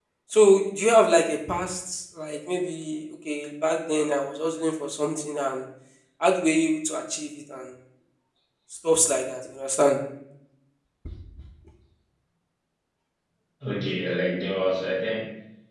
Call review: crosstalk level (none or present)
none